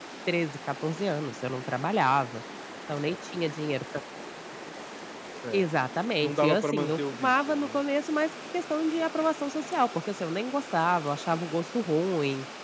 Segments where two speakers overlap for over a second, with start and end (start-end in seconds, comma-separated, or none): 6.2-7.8